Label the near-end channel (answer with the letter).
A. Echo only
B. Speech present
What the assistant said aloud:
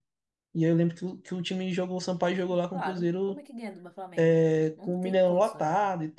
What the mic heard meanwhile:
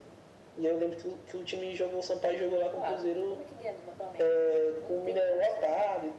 A